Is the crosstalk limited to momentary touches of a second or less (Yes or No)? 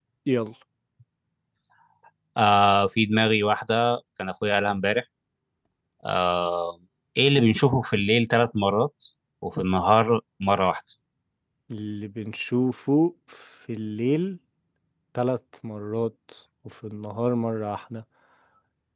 Yes